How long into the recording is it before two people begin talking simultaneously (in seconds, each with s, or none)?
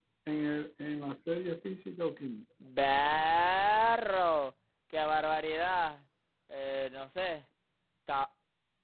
none